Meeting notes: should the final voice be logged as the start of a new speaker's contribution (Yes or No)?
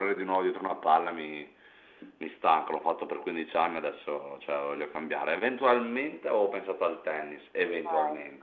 Yes